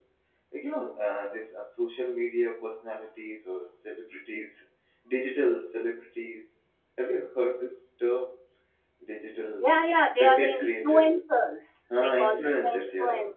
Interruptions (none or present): present